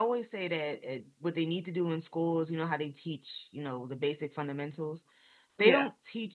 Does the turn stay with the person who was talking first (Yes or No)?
Yes